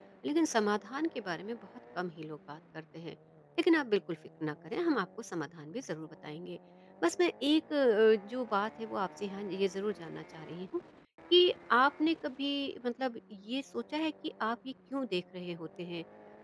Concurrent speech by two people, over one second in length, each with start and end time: none

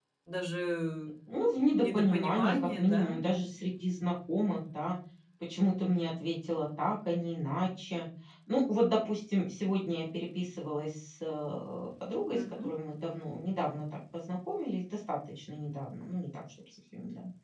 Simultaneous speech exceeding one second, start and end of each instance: 1.8-3.2

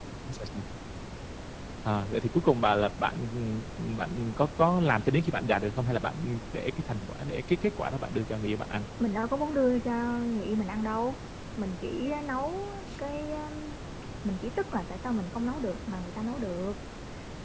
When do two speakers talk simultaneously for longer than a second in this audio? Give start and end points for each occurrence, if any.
none

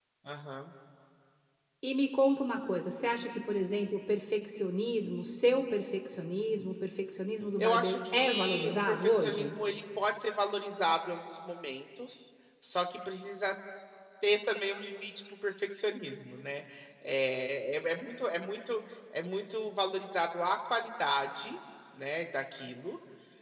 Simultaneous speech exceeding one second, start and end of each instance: 7.6-9.5

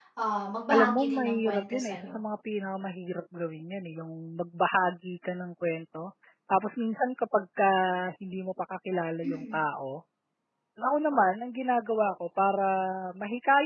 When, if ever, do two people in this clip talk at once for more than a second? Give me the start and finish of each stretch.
0.7-2.1

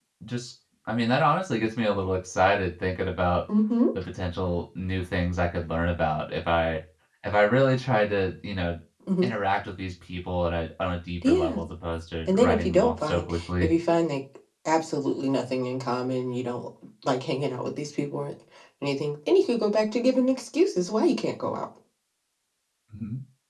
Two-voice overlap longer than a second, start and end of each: 12.3-13.7

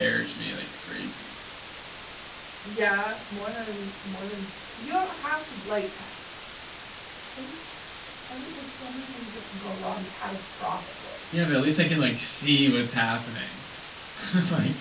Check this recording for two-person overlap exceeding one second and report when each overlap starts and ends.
none

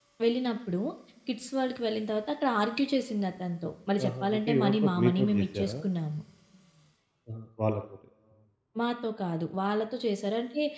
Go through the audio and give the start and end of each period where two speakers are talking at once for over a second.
4.0-5.7

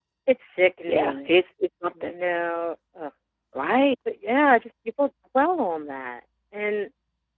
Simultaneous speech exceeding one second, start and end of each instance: none

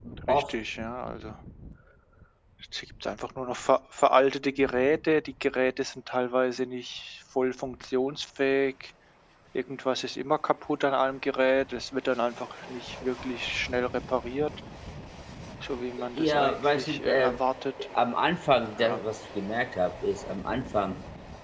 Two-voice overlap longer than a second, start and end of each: 16.2-17.4

